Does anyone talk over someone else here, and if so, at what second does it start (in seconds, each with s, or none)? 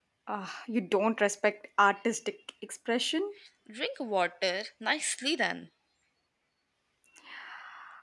none